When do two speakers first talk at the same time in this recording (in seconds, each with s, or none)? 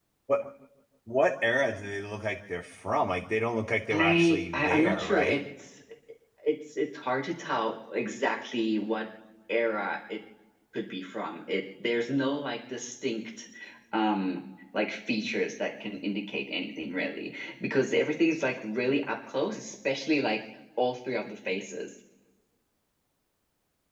3.9 s